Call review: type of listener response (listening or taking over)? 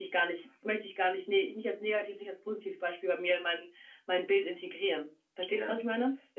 taking over